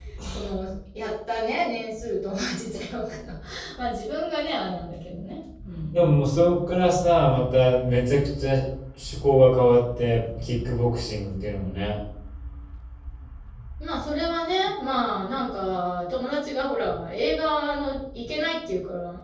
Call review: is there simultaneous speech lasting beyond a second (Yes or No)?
No